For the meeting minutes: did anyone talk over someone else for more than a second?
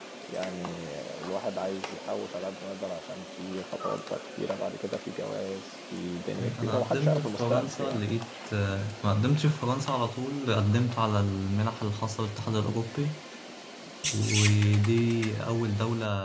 Yes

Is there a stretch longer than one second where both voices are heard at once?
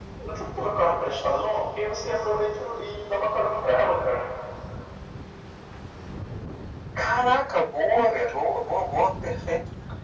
No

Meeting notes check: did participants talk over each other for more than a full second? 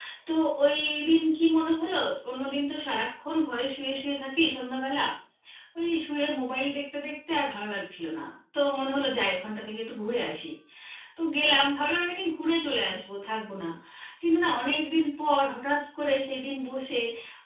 No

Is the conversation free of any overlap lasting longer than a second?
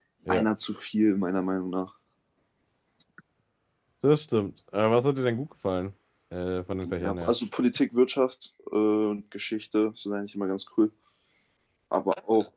Yes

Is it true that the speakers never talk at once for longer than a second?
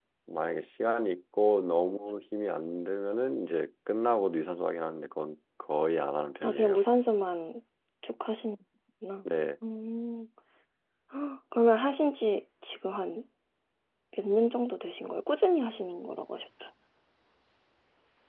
Yes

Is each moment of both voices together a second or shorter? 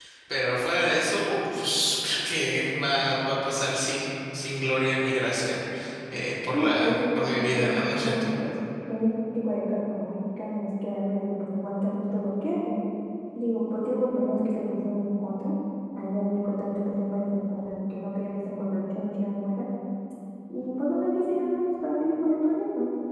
No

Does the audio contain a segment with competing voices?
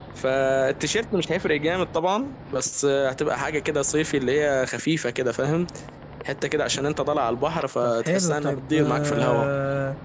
Yes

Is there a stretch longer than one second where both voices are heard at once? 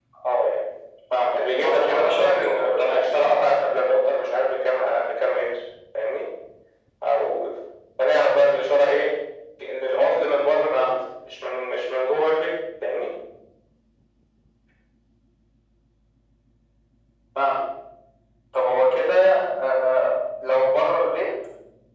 Yes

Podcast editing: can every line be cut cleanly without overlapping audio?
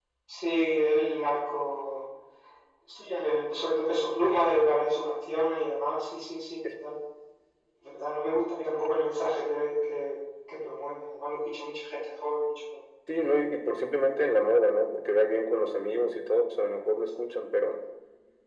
Yes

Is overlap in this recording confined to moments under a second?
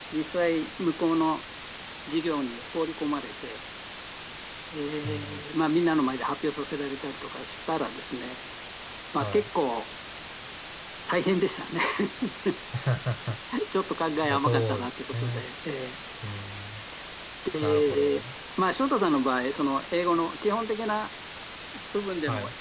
No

